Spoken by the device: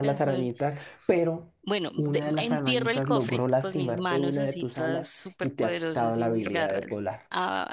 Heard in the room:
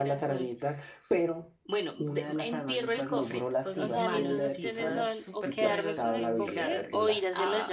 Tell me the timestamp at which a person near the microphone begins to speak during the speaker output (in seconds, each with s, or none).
3.8 s